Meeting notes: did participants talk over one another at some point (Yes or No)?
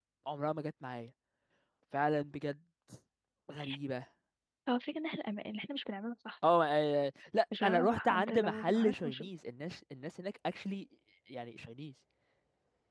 Yes